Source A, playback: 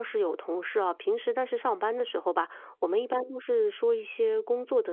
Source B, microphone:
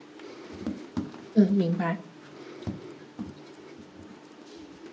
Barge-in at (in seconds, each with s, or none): 1.4 s